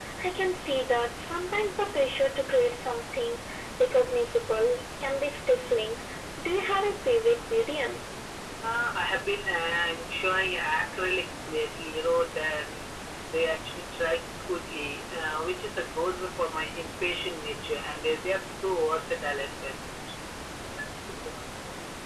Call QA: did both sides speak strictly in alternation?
Yes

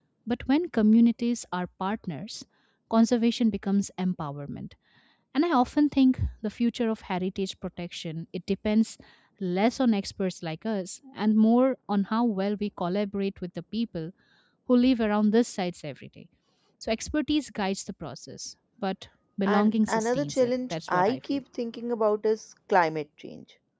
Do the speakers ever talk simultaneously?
Yes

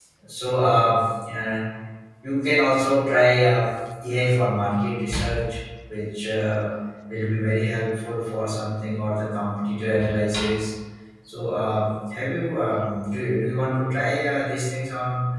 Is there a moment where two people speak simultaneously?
No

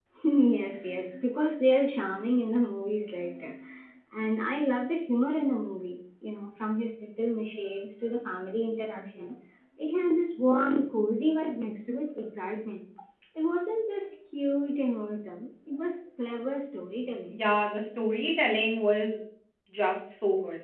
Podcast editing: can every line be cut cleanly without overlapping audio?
Yes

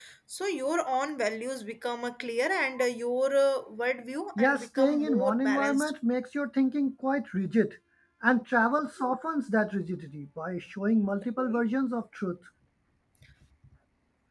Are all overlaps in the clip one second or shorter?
No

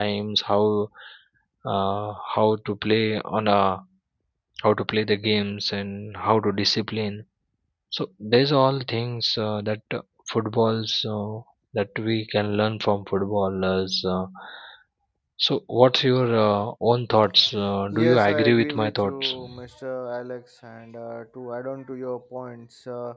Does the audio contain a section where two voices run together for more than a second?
Yes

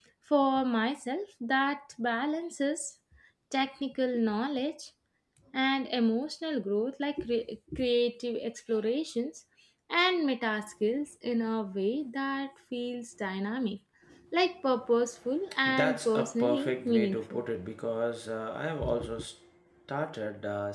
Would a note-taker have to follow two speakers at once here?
Yes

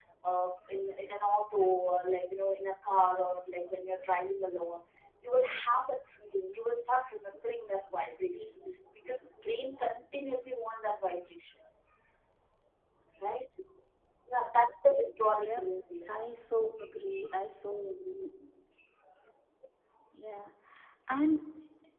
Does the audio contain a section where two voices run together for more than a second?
No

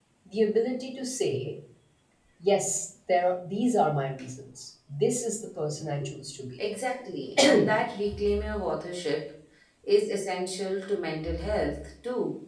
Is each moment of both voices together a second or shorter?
Yes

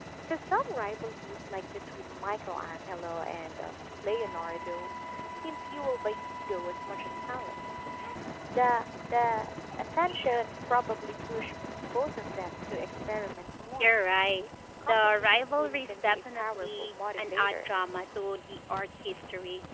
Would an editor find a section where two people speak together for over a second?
Yes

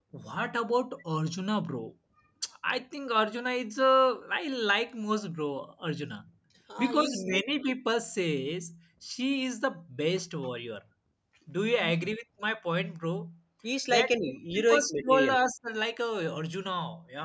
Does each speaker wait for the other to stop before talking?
No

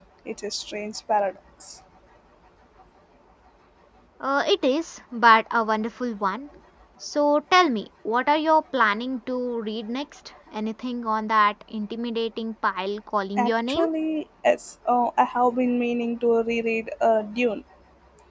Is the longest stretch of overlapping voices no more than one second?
Yes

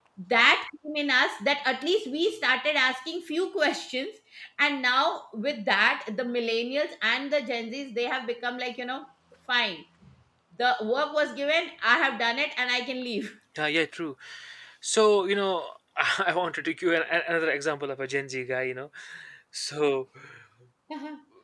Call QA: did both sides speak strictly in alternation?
Yes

